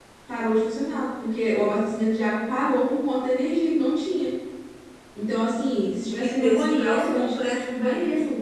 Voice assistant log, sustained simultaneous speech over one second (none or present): present